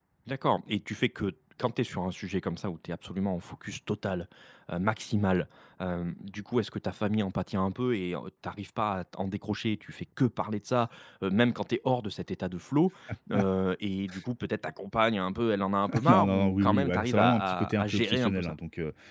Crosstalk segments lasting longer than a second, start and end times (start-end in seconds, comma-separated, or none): 16.1-18.5